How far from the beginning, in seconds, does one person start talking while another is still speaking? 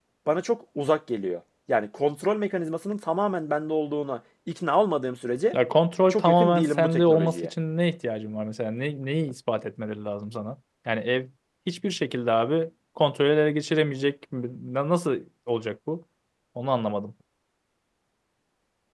6.1 s

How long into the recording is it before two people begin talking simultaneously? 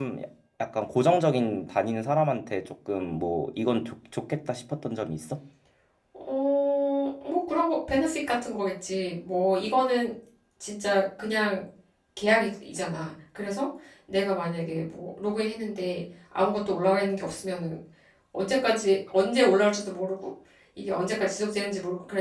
none

